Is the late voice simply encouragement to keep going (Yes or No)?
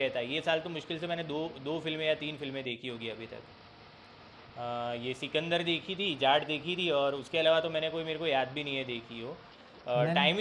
Yes